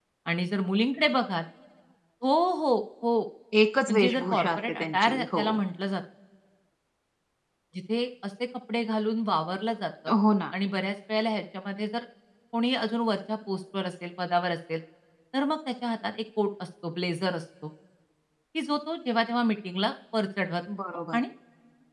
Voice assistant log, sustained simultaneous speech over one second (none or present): present